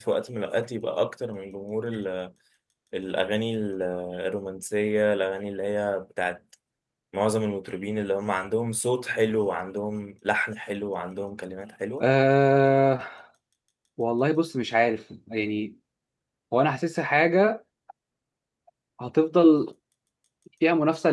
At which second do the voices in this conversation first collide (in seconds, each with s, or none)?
none